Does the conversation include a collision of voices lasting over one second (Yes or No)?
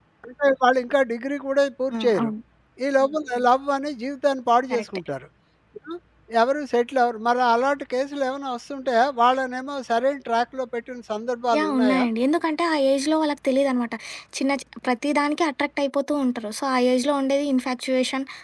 No